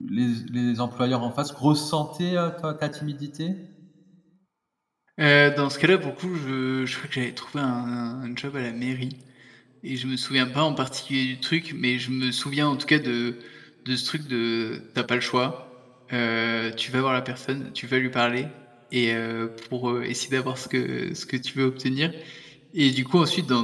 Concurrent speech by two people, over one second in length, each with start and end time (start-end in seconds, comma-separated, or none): none